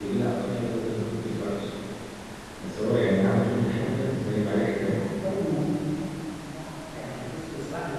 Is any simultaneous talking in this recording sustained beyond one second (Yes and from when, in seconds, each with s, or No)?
No